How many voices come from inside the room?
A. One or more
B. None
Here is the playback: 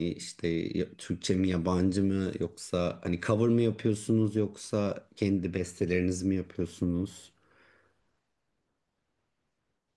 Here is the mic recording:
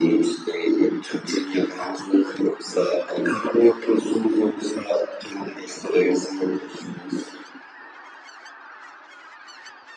B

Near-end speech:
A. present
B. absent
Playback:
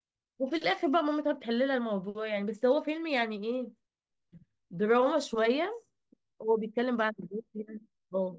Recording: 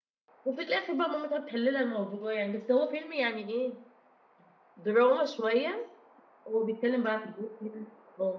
B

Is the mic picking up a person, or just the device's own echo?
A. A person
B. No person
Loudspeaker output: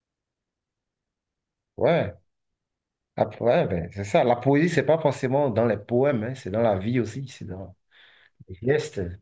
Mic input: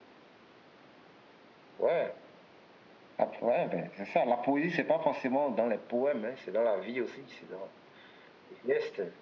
B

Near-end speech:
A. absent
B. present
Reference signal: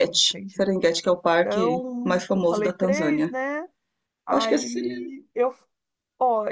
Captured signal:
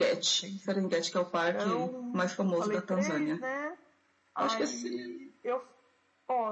A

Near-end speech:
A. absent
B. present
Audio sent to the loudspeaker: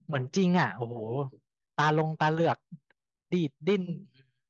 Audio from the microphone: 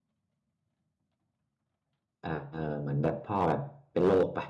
B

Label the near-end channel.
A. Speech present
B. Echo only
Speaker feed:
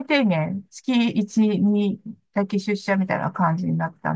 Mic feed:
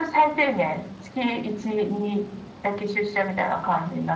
B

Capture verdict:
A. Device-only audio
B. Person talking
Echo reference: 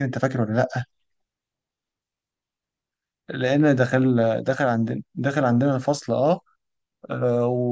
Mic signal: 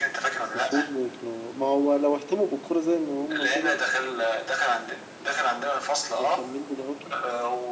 B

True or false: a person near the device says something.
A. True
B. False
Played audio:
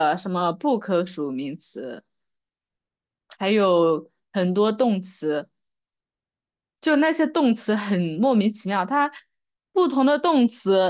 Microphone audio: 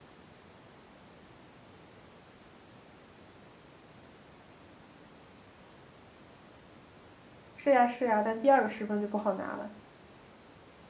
A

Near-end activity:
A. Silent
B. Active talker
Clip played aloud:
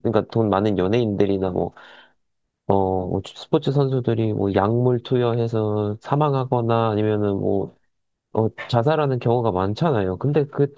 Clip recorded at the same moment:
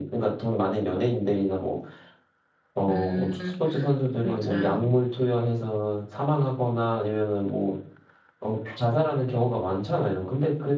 B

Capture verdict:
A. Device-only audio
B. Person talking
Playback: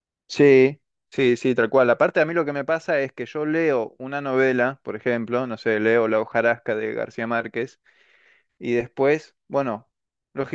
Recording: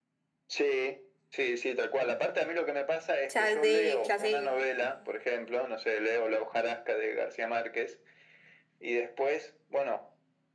B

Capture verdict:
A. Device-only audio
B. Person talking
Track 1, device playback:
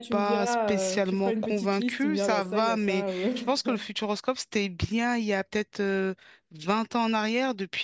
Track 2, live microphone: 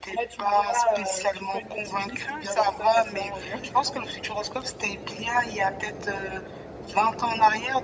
A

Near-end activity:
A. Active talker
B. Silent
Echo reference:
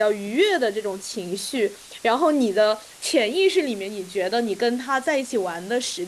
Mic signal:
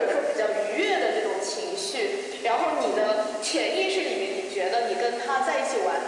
B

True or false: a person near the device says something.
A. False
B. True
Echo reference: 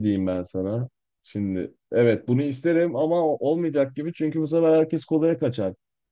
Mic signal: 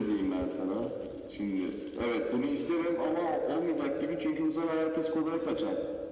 A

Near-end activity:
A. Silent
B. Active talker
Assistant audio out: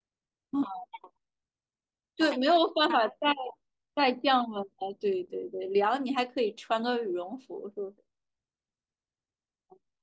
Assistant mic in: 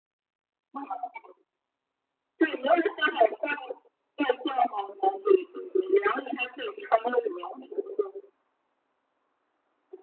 A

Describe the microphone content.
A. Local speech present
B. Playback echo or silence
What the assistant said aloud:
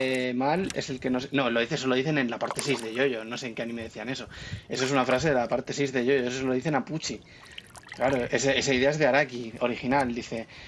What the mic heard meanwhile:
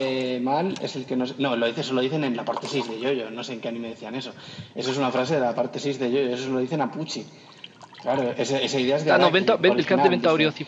A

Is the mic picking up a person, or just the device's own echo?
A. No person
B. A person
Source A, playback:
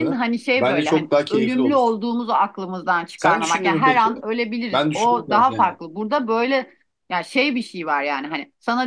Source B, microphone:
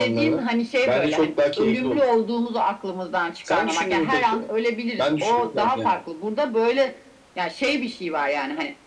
A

